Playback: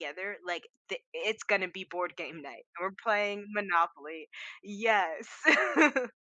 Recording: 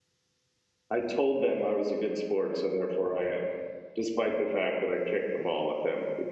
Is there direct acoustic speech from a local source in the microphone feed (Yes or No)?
Yes